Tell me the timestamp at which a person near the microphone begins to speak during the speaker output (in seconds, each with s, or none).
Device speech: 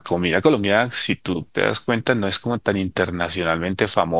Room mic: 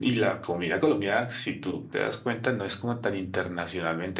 none